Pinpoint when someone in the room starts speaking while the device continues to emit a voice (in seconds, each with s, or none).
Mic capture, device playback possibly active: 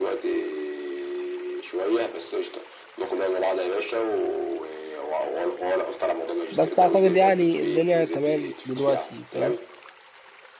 6.5 s